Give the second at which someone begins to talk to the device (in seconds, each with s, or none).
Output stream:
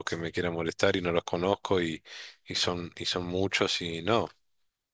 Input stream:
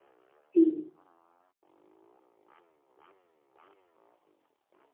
0.5 s